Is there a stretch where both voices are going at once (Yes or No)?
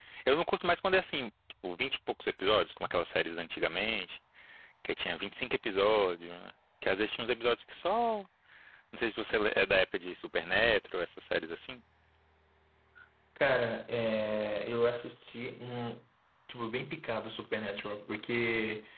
No